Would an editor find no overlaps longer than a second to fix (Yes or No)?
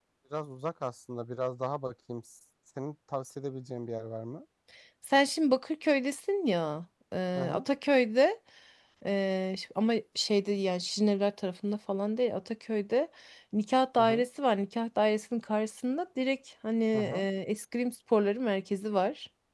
Yes